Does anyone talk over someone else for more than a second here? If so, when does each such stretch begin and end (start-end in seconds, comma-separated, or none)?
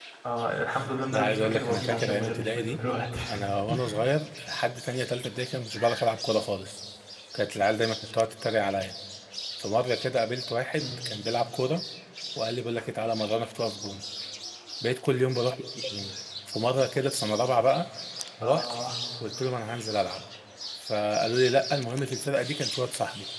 1.1-2.8